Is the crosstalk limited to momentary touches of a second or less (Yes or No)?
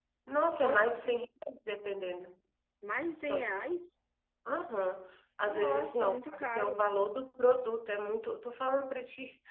No